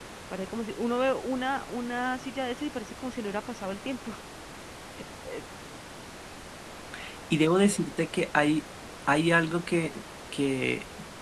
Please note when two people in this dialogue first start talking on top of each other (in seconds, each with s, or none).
none